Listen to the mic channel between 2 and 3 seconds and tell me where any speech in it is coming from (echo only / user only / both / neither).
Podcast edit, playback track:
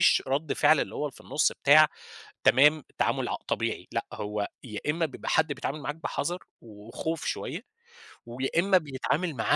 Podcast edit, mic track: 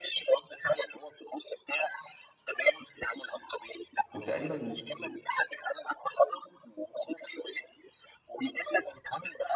echo only